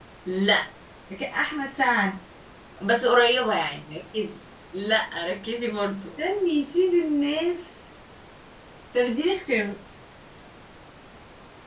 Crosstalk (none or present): none